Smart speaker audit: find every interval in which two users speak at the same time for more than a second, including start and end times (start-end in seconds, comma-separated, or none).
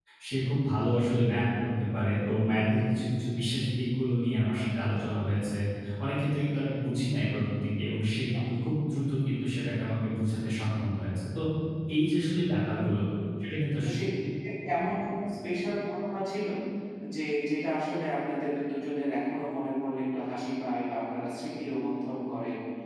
none